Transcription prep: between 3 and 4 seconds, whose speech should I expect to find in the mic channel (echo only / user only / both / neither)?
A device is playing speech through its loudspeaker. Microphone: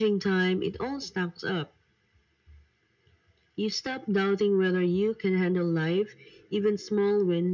echo only